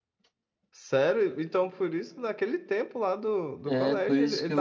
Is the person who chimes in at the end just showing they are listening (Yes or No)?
No